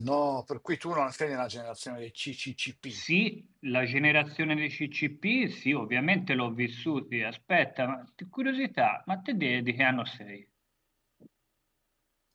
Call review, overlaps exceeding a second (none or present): none